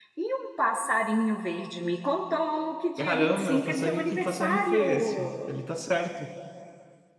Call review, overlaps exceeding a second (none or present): present